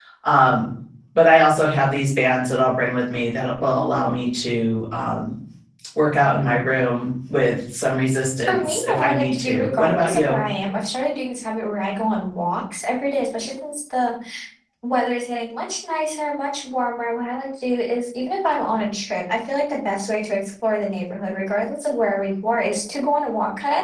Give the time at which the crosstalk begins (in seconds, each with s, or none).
8.5 s